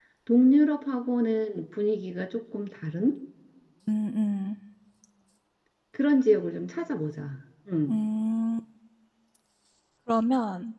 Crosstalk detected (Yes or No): No